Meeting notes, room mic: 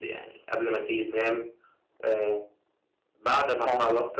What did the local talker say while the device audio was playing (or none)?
امم، تمام.